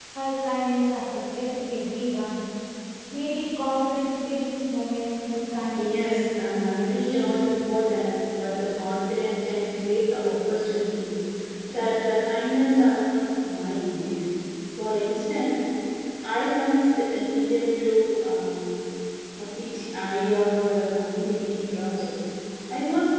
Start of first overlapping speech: 5.8 s

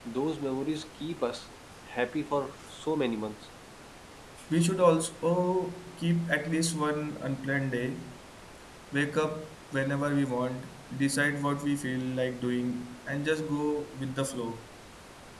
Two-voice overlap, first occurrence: none

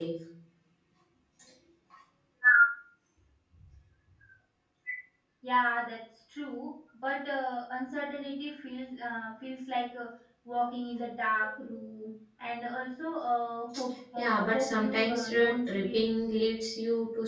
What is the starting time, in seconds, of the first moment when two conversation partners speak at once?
14.2 s

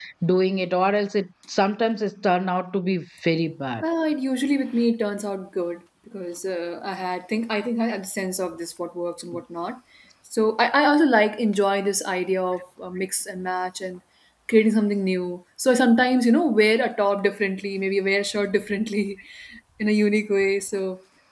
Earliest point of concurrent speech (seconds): none

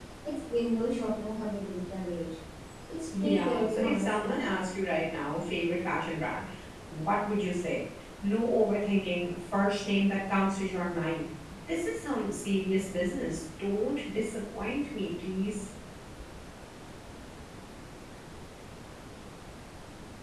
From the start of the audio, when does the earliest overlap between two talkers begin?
3.2 s

